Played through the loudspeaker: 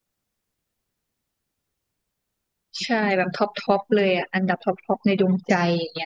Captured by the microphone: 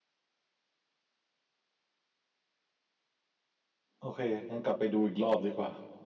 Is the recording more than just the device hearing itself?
Yes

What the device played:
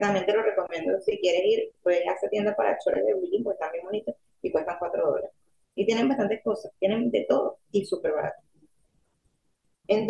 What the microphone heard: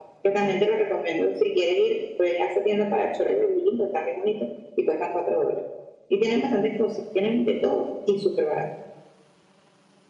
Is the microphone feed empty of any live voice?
Yes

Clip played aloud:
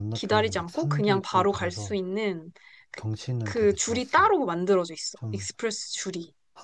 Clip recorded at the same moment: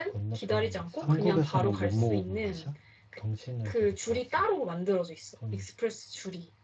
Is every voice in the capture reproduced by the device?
No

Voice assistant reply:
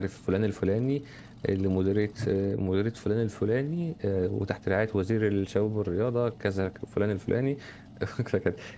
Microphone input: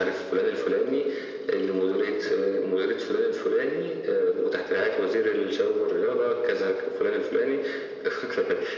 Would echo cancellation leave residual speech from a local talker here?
No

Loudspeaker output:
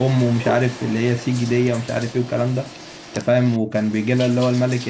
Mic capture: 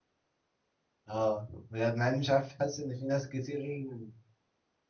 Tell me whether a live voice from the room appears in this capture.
Yes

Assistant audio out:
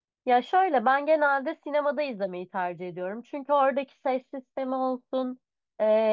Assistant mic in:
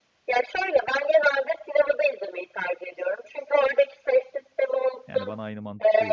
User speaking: Yes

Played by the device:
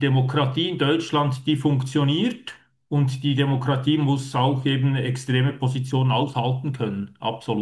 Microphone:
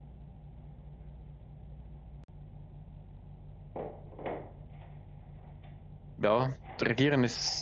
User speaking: Yes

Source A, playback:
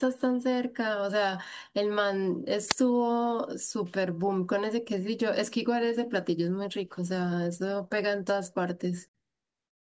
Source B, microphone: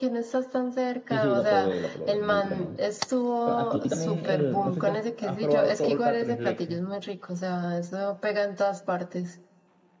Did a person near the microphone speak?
Yes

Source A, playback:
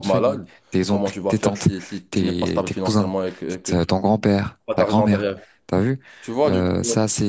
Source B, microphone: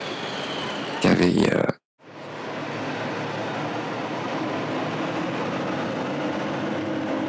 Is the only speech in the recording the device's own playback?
No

